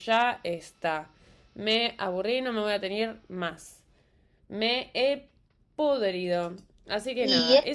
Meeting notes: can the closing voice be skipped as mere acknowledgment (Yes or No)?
No